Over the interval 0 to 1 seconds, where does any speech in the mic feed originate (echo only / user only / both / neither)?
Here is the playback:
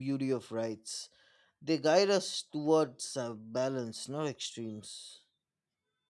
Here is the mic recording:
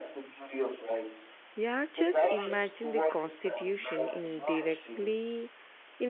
echo only